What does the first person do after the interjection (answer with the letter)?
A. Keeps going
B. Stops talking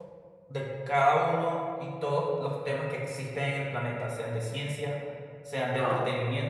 A